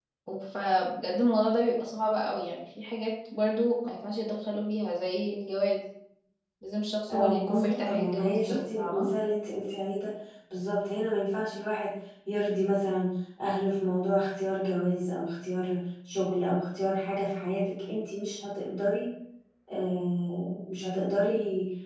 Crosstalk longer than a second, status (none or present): present